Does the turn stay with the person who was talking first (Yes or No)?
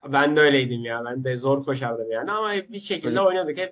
Yes